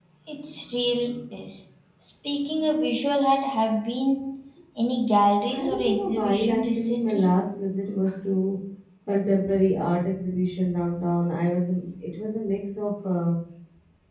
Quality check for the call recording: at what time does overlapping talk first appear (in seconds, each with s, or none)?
5.5 s